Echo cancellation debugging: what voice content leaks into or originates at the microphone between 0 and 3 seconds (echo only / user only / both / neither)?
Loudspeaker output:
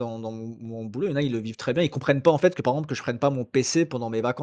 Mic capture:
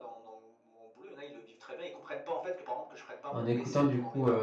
echo only